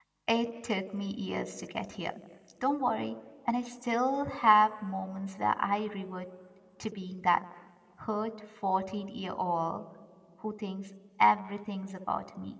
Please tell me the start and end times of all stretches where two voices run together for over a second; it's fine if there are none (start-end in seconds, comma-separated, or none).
none